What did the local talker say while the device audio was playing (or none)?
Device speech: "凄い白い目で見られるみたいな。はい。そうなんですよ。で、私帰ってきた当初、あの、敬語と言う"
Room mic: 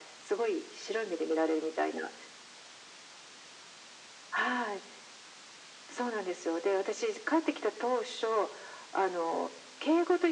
none